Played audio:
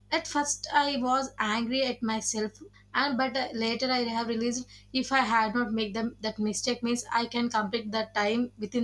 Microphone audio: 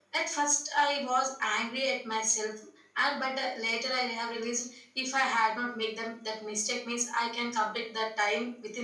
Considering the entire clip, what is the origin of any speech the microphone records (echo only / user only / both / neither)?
echo only